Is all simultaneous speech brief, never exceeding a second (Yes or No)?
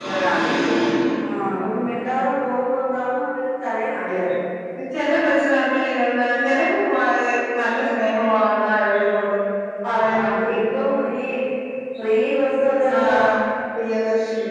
Yes